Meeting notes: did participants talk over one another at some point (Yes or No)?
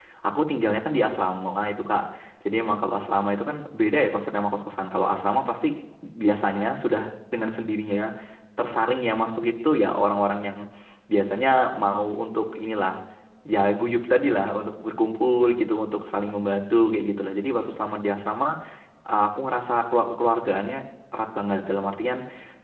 No